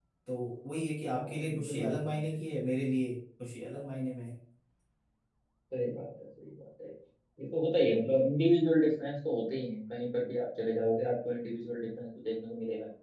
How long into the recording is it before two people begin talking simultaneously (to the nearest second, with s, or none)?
1 s